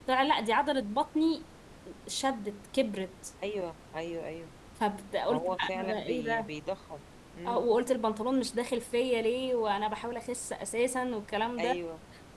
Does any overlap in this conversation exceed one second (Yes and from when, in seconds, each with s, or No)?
Yes, from 5.3 s